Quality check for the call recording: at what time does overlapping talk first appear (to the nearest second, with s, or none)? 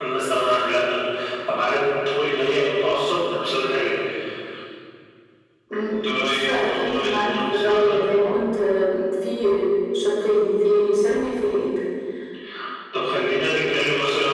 6 s